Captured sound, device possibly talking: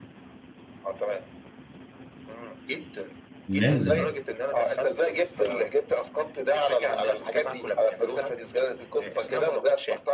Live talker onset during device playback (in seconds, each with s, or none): 3.5 s